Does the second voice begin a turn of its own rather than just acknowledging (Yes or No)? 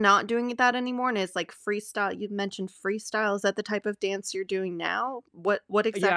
Yes